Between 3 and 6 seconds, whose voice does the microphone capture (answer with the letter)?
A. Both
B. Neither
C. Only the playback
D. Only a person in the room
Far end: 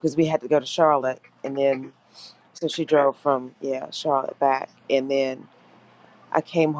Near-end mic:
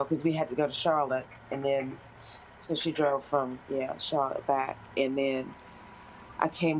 C